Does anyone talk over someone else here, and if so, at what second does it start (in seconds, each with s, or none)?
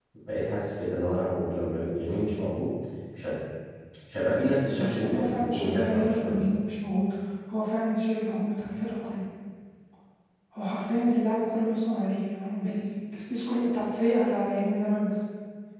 4.8 s